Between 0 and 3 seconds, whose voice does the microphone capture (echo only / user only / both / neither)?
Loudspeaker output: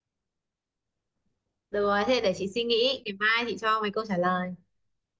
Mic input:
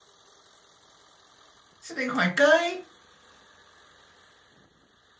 user only